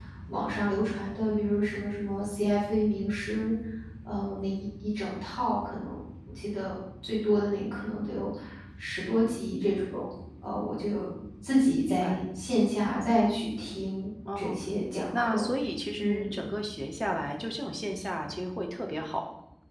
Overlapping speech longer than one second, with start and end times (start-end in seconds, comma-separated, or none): none